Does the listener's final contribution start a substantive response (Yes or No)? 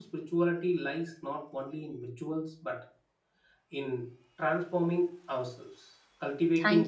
No